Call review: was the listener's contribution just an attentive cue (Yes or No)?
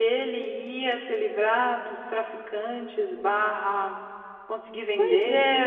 No